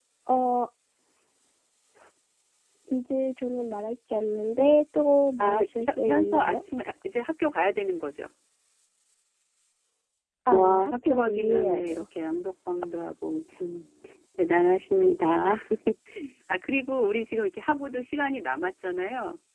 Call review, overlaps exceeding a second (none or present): present